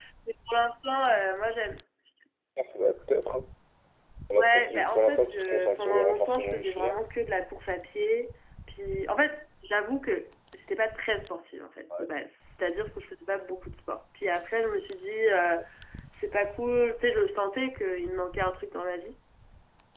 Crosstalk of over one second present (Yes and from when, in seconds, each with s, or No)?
Yes, from 4.4 s